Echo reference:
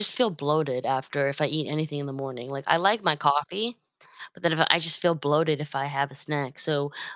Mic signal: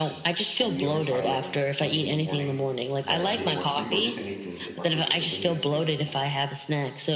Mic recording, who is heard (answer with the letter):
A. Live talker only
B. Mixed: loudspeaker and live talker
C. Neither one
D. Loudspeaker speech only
B